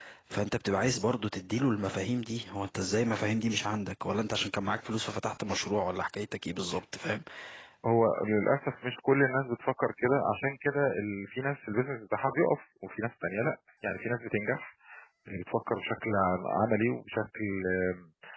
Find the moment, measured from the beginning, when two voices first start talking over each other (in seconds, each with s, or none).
none